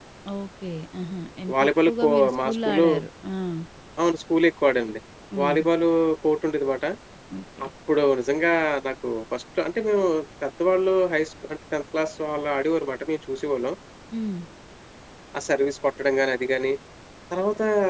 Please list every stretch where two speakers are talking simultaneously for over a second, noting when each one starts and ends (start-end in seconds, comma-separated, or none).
1.5-2.9